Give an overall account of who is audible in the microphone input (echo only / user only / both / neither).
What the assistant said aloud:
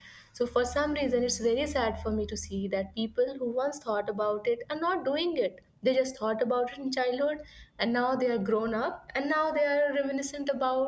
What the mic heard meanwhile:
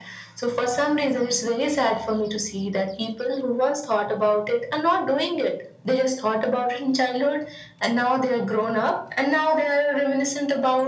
echo only